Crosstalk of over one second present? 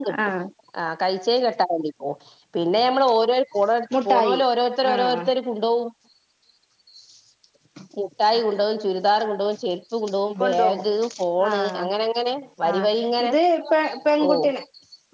No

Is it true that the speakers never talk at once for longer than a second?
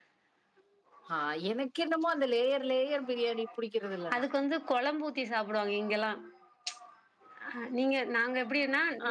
Yes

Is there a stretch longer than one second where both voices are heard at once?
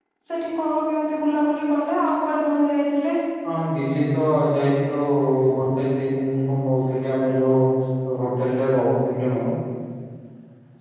No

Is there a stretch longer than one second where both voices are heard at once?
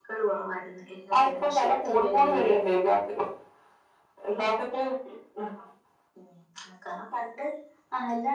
Yes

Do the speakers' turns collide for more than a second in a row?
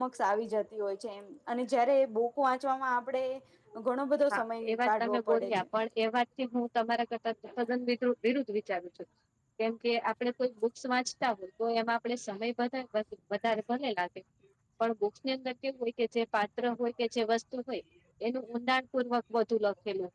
Yes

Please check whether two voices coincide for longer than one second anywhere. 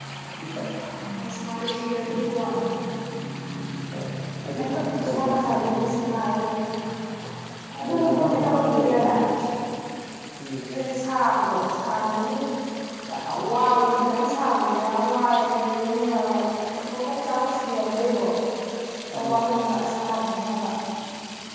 Yes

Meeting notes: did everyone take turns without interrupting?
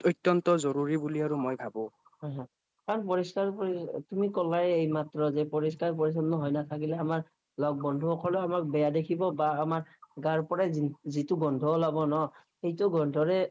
Yes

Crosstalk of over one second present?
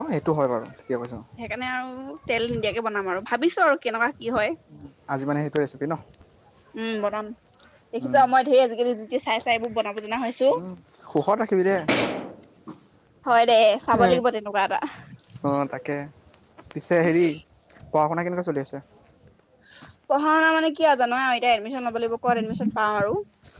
No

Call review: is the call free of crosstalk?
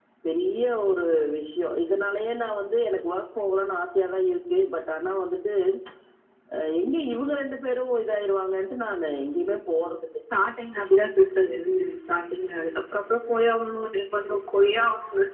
Yes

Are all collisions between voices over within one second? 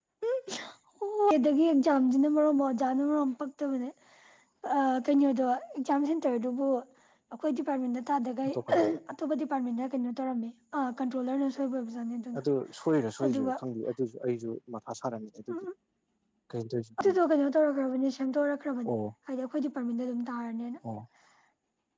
Yes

